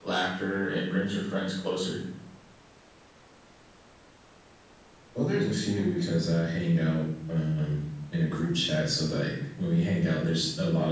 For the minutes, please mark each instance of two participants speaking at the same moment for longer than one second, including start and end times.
none

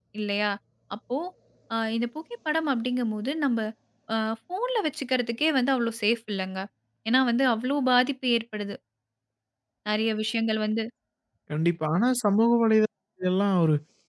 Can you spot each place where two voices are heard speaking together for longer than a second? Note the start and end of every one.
none

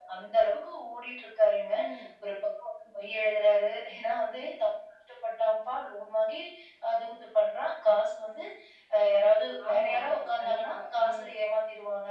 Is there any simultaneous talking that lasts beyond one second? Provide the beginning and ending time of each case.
9.7-11.3

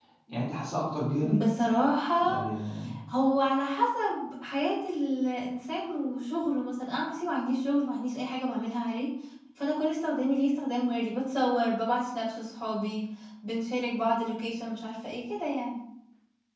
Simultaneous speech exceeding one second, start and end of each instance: none

